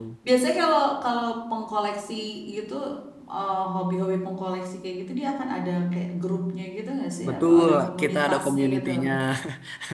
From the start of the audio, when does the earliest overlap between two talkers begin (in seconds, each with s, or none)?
7.2 s